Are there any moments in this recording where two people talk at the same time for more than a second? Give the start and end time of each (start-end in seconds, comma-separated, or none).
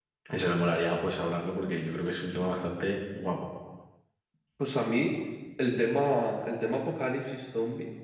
none